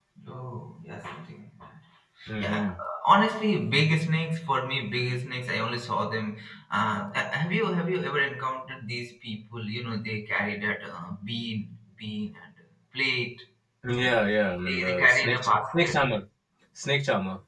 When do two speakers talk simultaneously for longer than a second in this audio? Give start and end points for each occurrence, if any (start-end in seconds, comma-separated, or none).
14.7-16.0